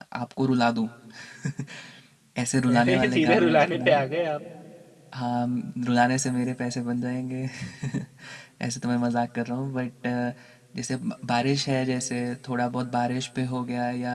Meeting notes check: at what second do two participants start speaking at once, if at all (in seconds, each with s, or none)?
2.7 s